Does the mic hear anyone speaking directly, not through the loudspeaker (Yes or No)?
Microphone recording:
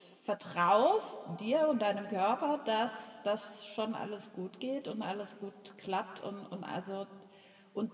Yes